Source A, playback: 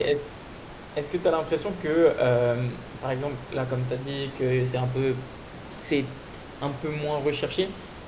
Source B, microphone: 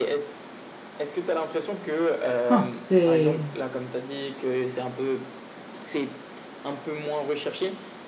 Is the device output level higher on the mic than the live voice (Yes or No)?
No